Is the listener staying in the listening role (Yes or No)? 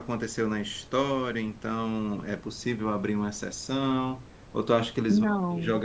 Yes